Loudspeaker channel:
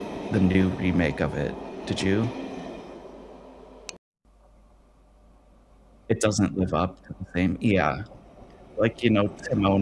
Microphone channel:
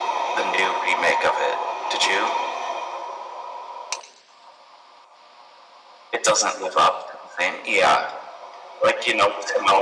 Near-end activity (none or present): none